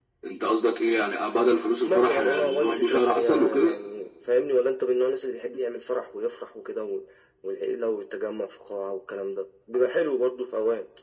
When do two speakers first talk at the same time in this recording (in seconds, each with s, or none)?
1.8 s